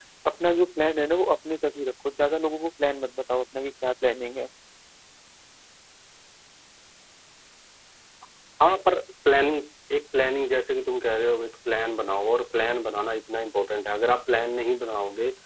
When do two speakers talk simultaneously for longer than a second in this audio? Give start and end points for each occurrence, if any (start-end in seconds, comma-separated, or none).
none